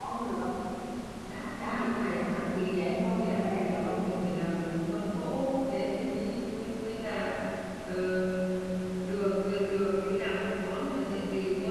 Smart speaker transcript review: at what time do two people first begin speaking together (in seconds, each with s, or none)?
1.6 s